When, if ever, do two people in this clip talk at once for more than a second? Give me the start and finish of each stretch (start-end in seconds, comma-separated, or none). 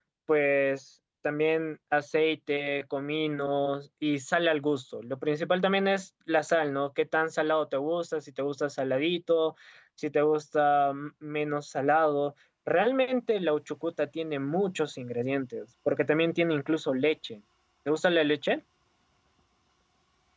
none